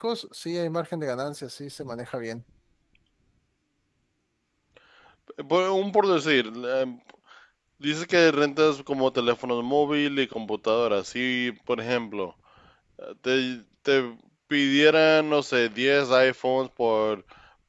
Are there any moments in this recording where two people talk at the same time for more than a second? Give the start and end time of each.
none

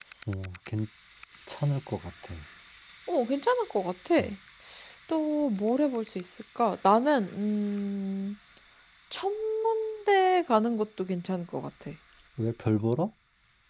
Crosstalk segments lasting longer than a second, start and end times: none

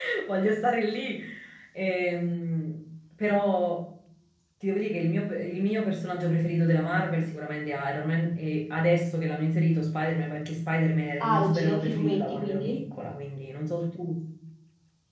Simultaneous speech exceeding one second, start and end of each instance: 11.2-12.8

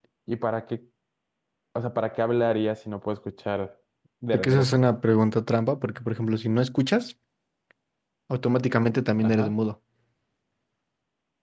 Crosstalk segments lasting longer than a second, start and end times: none

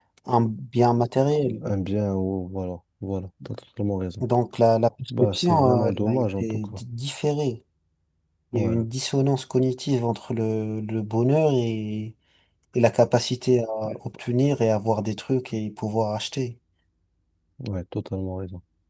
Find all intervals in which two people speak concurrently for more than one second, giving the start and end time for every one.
5.1-6.8

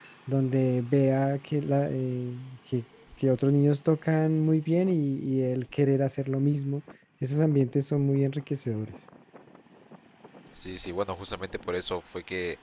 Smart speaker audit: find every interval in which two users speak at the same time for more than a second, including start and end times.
none

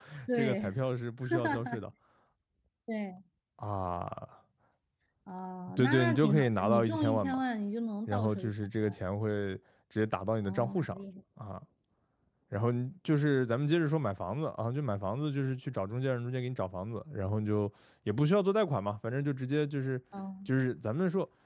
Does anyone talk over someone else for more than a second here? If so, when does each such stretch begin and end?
5.7-7.4

